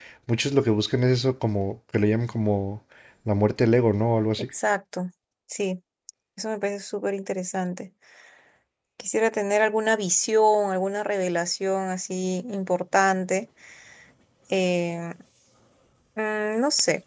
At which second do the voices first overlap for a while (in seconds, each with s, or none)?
none